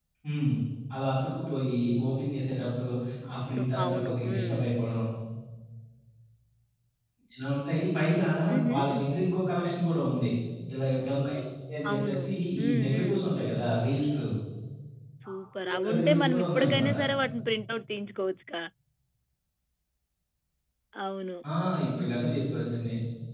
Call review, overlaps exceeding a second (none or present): present